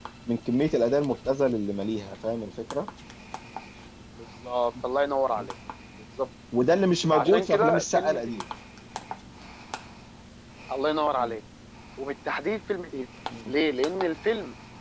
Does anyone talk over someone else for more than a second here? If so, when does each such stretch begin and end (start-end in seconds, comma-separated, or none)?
7.1-8.4